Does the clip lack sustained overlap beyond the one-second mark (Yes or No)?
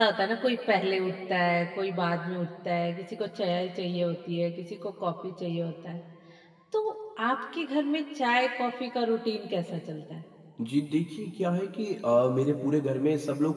Yes